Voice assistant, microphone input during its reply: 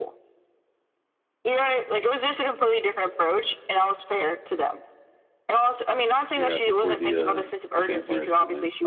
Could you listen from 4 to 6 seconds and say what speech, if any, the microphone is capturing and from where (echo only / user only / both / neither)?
echo only